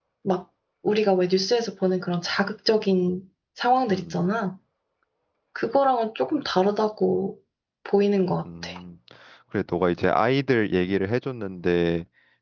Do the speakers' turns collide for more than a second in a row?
No

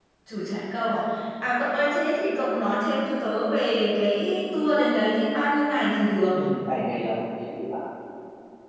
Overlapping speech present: No

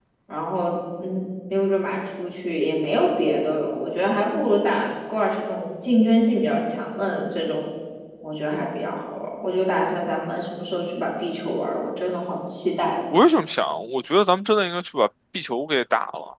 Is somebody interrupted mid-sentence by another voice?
No

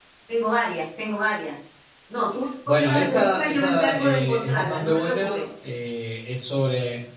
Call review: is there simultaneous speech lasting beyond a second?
Yes, from 2.7 s

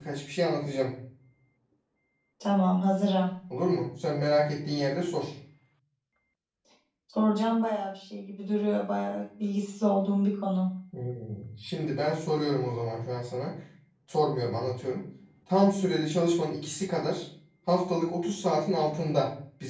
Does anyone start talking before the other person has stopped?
No

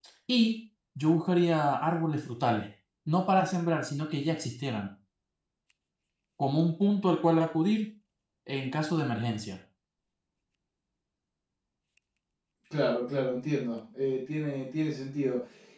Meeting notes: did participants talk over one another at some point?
No

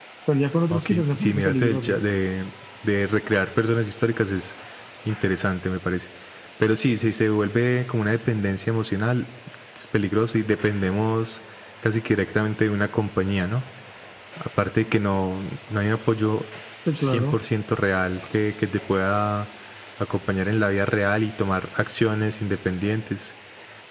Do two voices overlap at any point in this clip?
Yes, from 0.7 s

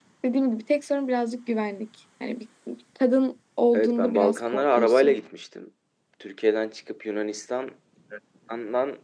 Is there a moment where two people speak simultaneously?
Yes, from 3.7 s

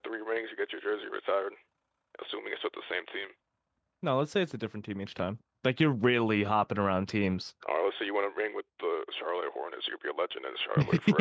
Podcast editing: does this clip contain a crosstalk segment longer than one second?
No

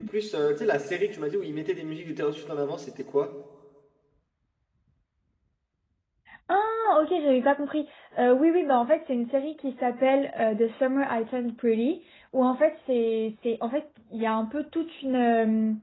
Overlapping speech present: No

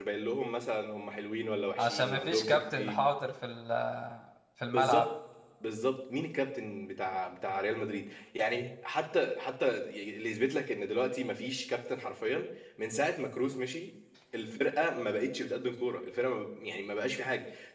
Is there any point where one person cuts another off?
Yes, from 1.8 s

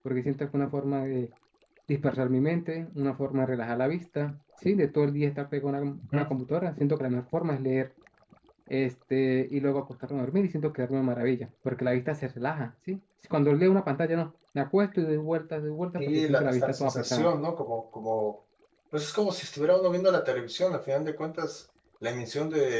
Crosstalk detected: Yes, from 16.0 s

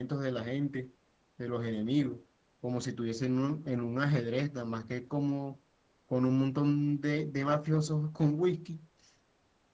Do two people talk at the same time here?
No

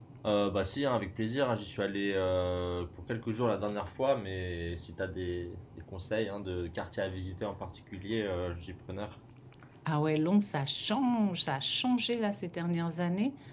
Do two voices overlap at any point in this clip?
No

